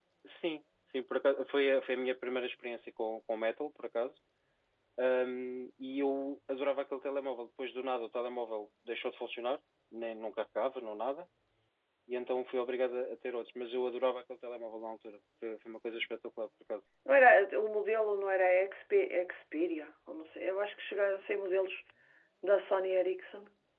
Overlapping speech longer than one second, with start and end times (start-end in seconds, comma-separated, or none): none